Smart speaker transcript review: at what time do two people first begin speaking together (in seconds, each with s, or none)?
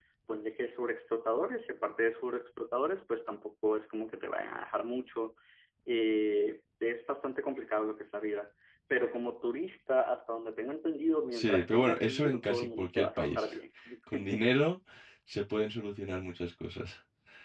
11.3 s